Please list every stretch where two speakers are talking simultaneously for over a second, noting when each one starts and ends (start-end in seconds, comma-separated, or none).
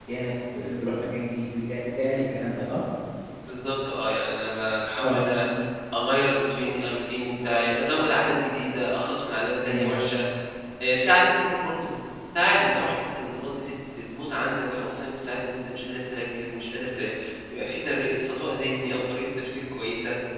none